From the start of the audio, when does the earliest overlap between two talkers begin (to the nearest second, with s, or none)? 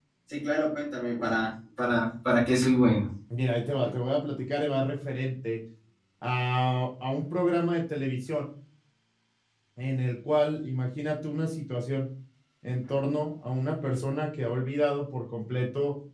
none